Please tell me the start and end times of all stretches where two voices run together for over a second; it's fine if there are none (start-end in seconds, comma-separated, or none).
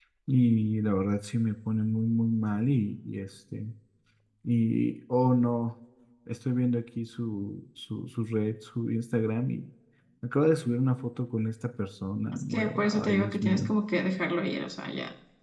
12.3-13.7